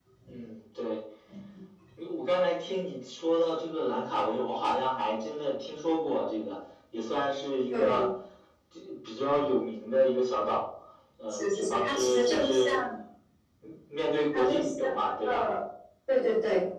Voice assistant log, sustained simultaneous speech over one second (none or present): present